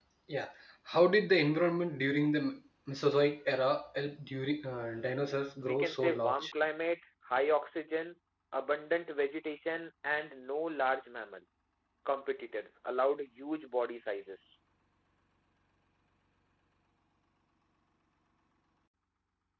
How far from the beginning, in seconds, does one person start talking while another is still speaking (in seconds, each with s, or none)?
4.7 s